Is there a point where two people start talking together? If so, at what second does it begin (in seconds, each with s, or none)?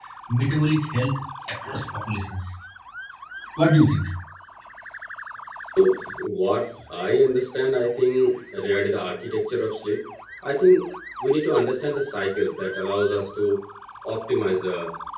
none